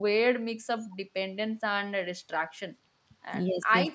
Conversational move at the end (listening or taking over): listening